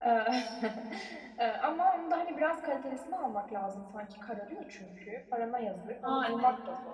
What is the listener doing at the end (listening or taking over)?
taking over